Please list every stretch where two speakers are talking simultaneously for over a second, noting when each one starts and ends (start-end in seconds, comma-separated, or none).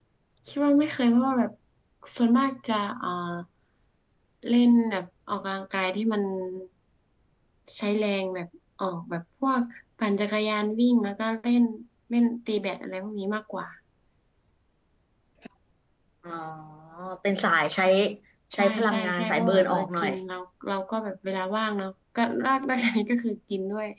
18.6-20.1